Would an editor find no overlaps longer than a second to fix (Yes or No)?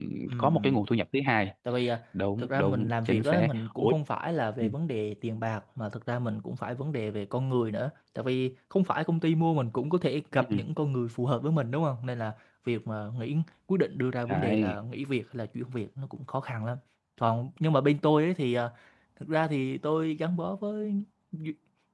No